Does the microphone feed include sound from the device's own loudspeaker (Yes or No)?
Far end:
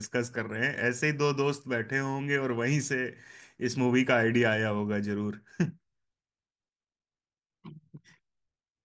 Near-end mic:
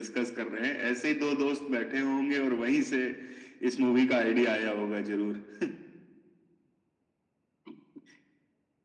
Yes